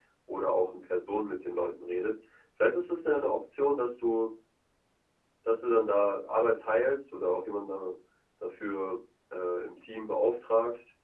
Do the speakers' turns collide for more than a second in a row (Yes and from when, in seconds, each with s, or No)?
No